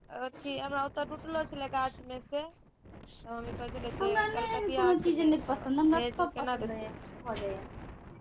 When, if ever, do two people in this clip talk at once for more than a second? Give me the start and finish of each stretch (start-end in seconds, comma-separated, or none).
4.0-6.9